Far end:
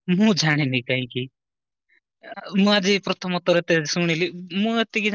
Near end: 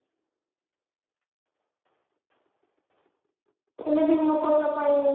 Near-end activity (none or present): present